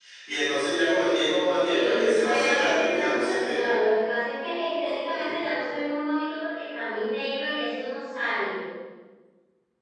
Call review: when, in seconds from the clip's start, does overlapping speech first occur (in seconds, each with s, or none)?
1.6 s